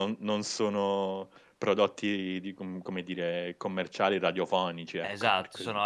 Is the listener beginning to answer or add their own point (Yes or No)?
Yes